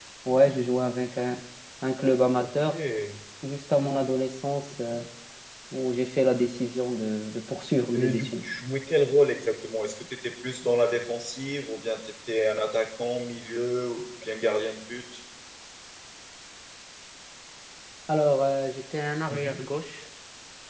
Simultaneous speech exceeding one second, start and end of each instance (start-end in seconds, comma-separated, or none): none